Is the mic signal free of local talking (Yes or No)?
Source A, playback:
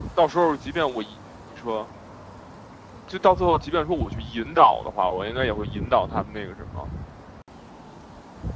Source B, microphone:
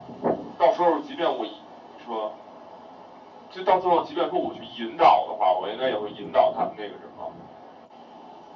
Yes